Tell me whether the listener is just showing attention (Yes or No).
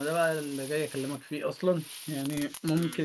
Yes